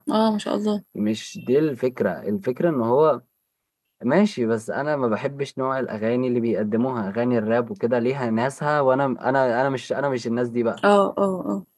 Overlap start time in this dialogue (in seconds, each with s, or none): none